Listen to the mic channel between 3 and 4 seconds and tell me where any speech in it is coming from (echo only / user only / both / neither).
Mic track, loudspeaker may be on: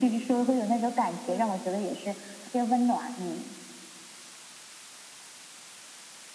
echo only